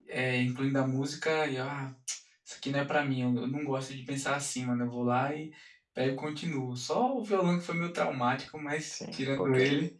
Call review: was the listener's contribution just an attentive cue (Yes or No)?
No